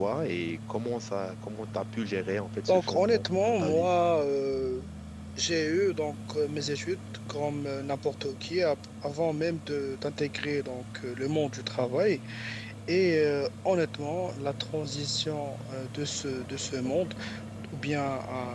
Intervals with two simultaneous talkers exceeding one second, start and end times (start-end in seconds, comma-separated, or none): 2.7-3.9